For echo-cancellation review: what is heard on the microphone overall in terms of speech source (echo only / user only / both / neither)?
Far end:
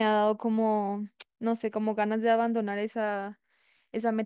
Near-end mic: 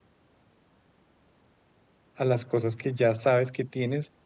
user only